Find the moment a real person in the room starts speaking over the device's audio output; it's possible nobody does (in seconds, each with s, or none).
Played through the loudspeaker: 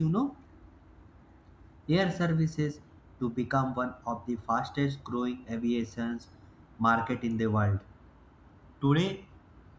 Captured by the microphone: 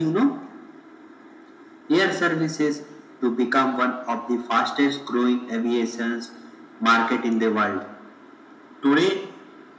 none